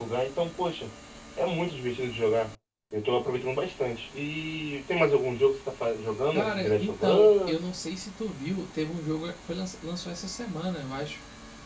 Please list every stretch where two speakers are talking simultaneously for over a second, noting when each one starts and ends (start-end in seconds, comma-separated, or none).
6.3-7.5